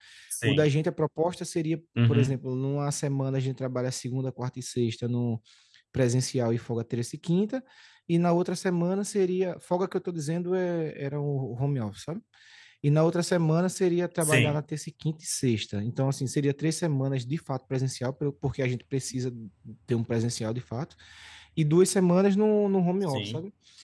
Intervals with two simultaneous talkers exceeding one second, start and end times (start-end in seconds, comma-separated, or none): none